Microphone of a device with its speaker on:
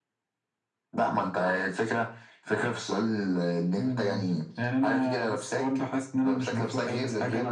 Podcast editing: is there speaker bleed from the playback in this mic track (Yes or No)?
Yes